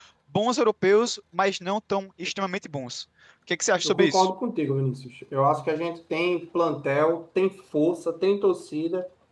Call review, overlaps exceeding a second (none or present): none